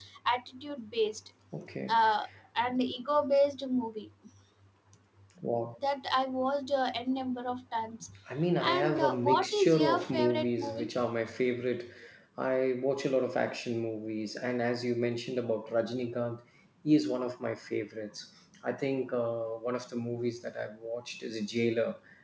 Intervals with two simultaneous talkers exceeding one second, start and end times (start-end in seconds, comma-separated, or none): 8.7-10.9